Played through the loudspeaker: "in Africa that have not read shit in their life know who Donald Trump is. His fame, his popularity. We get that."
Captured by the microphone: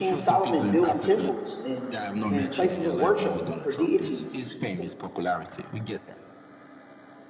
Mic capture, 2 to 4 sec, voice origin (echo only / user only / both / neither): both